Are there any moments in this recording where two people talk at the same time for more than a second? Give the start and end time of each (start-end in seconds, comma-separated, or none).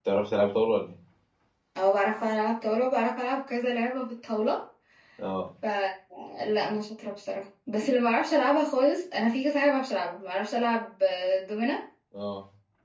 none